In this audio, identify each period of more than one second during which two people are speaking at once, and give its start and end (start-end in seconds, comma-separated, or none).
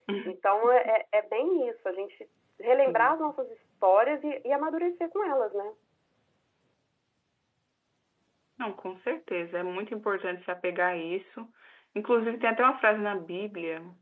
none